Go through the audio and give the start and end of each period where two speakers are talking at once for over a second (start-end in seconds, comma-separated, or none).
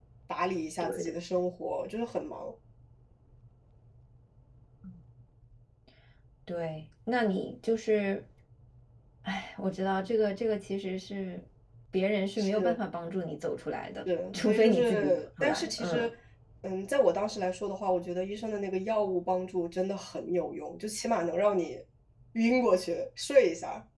14.3-16.1